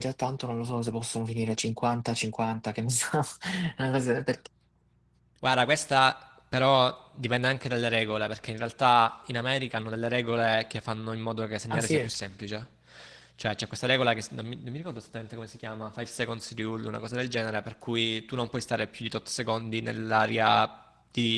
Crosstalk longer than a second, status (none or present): none